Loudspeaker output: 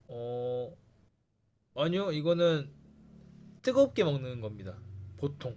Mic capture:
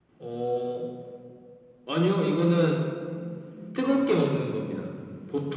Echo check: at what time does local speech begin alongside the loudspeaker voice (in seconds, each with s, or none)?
none